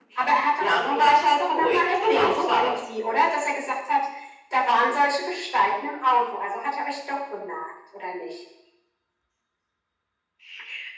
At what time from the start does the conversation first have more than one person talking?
0.6 s

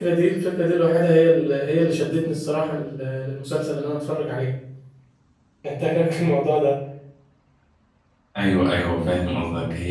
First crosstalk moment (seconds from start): none

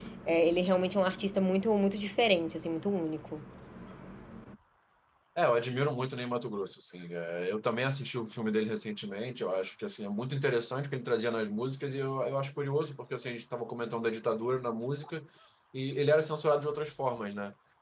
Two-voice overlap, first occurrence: none

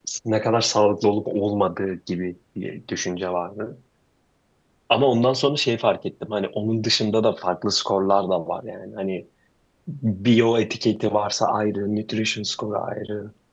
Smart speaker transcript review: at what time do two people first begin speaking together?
none

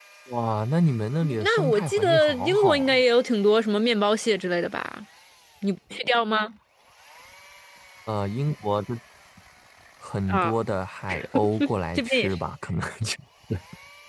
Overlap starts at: 1.2 s

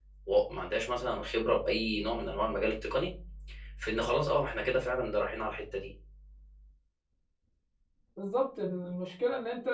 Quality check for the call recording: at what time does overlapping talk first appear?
none

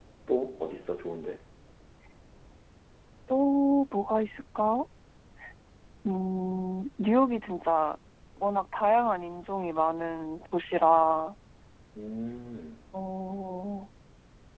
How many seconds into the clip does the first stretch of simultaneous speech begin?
none

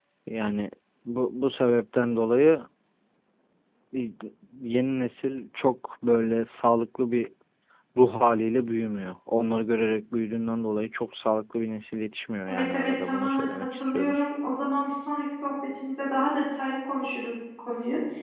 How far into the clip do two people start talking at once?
12.5 s

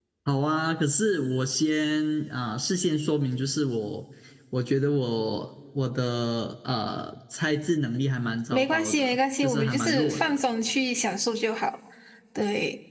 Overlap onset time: 8.5 s

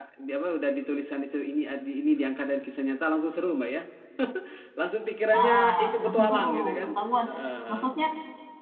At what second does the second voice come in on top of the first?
5.3 s

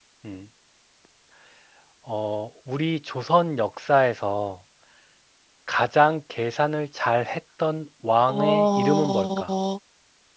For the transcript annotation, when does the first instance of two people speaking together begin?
8.3 s

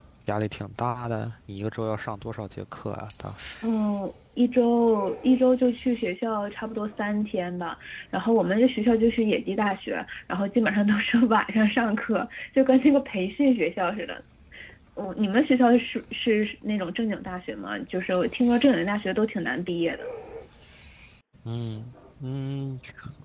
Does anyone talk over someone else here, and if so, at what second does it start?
none

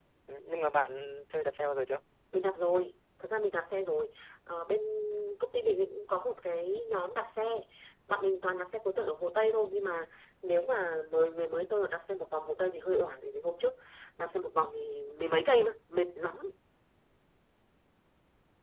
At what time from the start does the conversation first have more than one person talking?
none

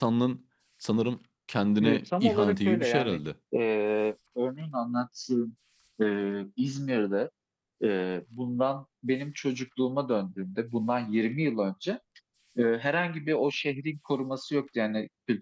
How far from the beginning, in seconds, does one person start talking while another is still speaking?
1.8 s

